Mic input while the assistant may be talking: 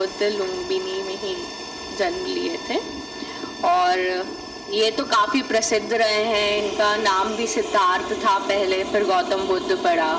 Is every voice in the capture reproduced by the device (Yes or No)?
Yes